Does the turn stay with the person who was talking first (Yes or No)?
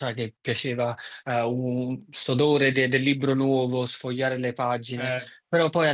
Yes